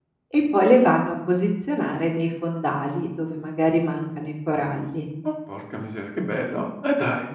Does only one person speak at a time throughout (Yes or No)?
Yes